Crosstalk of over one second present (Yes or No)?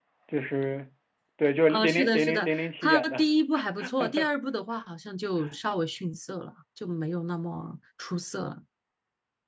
Yes